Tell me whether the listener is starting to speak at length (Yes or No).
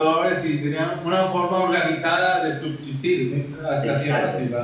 Yes